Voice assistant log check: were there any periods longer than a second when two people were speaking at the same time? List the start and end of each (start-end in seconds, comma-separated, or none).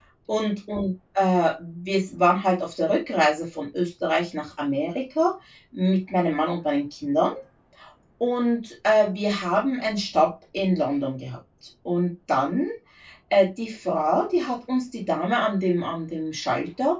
none